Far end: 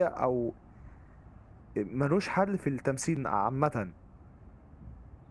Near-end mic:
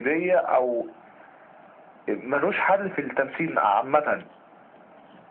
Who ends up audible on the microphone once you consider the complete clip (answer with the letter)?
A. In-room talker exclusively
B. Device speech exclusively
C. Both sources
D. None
B